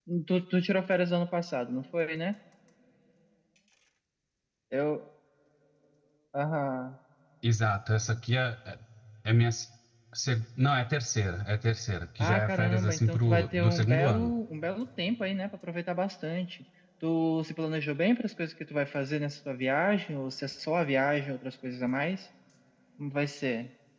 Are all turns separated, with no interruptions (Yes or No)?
No